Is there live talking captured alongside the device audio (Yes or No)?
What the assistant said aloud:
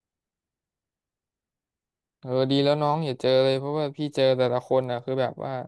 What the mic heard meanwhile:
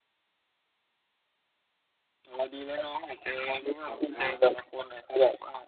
Yes